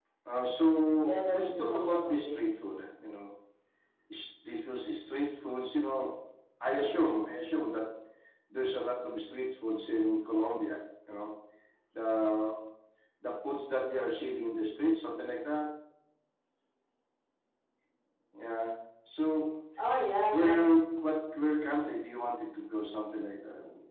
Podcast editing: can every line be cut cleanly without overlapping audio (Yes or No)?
No